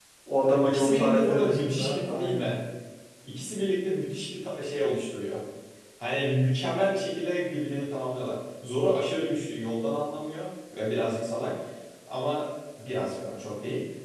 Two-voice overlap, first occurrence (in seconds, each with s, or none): 0.6 s